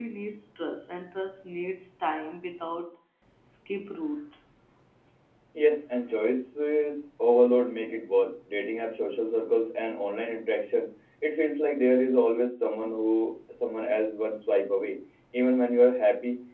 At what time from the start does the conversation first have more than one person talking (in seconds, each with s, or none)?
none